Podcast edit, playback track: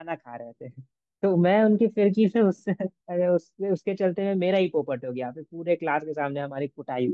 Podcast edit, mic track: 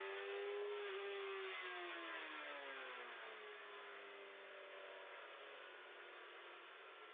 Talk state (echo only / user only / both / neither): neither